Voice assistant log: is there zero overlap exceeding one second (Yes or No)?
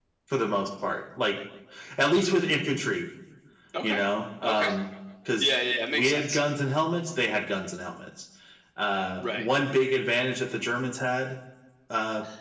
Yes